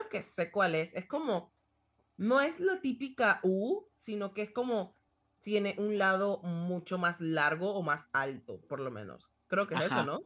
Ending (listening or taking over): taking over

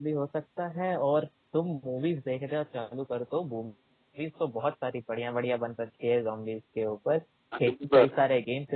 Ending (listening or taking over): listening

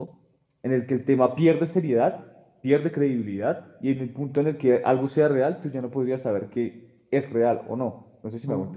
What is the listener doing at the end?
taking over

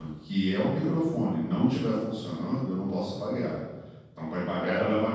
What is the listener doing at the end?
listening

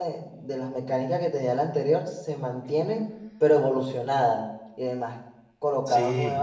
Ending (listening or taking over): listening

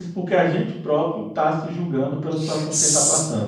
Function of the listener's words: taking over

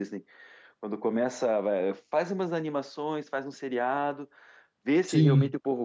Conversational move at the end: listening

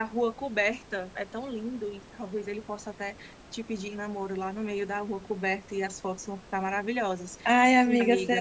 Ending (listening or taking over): taking over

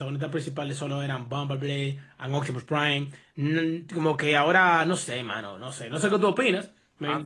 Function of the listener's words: taking over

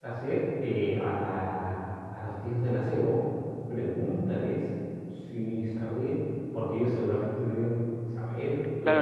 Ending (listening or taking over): taking over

